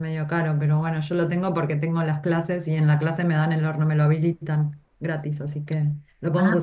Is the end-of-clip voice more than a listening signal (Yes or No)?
Yes